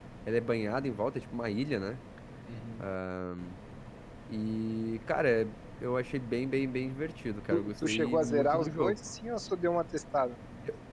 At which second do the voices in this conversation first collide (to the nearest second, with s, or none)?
8 s